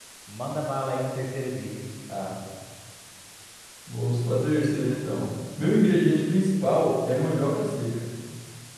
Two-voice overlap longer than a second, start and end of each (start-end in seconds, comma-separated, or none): none